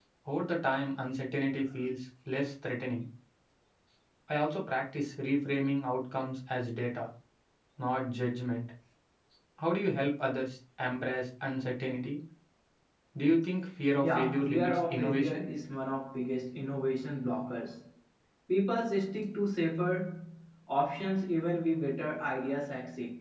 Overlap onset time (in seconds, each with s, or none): 14.0 s